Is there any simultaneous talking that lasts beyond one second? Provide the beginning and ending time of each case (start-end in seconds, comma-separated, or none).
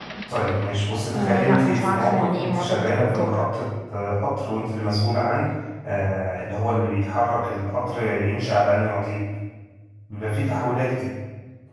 1.1-3.4